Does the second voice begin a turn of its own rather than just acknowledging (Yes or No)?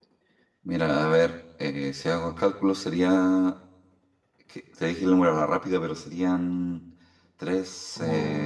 Yes